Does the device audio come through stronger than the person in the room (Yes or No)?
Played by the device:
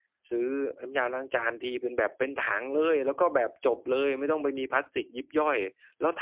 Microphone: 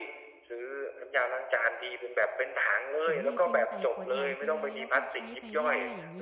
Yes